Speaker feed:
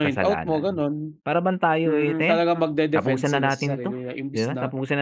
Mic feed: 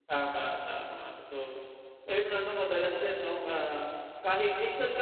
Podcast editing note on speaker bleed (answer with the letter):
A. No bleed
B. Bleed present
A